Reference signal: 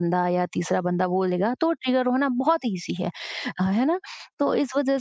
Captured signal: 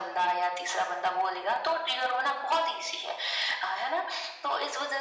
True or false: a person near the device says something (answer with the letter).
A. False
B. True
A